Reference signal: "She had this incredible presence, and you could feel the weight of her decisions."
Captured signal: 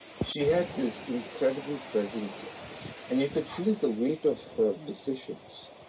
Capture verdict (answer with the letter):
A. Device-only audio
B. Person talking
A